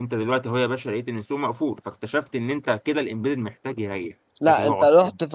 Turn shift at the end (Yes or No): Yes